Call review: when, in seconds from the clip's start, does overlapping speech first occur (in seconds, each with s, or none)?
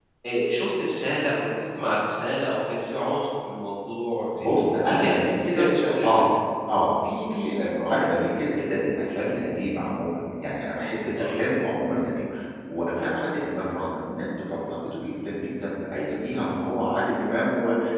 4.9 s